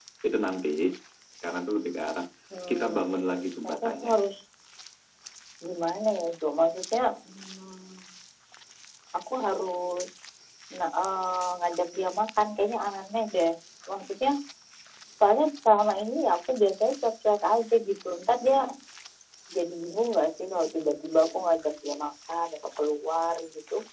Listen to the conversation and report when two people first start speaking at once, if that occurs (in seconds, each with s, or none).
2.7 s